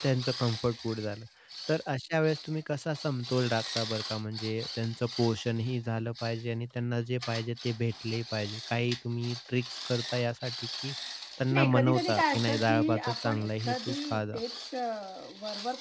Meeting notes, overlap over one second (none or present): present